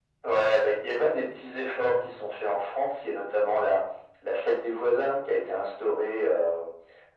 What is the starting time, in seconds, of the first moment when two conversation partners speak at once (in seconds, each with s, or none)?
none